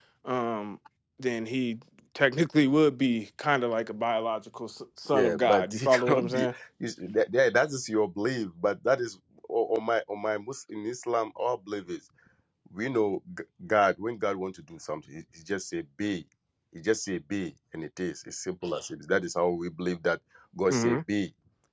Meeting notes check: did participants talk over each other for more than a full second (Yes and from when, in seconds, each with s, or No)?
Yes, from 5.1 s